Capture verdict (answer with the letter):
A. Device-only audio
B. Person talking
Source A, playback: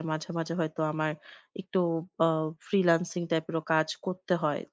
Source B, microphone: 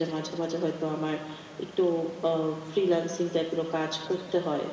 A